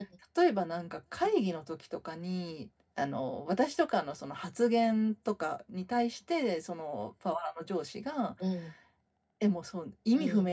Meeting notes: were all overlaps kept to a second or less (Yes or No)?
Yes